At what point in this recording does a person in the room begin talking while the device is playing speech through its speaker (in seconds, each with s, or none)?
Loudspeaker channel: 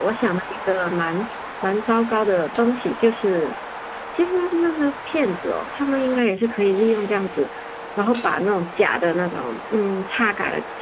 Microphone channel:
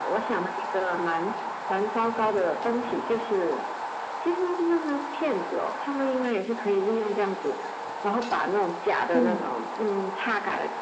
9.1 s